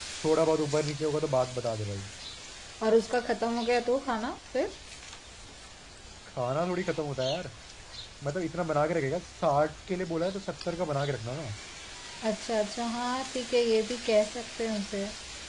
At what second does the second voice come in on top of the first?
none

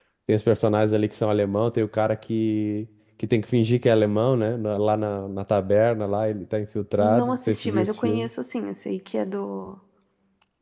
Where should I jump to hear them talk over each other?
7.0 s

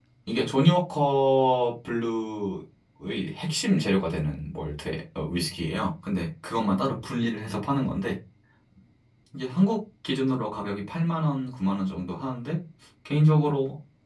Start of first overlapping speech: none

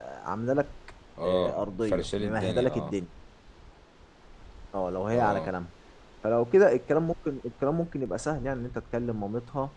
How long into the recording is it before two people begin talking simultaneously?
1.2 s

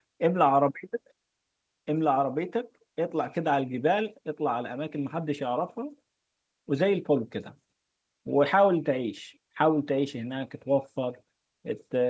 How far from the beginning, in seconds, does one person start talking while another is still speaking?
none

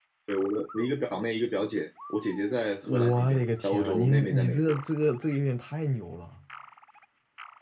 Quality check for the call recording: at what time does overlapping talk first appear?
2.8 s

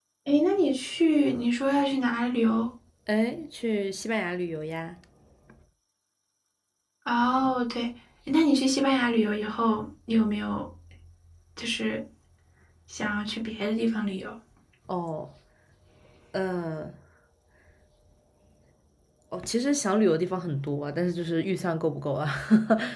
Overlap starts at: none

